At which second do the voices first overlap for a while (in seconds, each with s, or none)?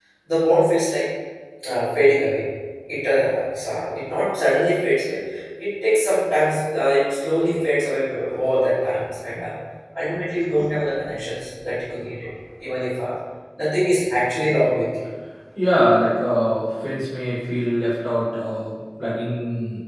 none